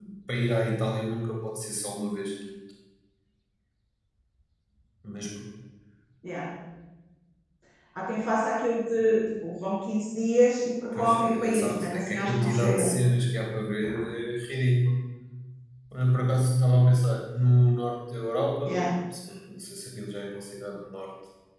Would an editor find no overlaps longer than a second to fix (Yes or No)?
No